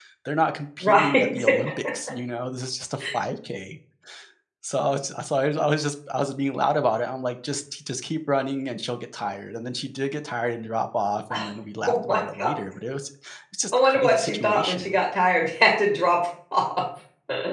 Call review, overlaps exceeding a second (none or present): present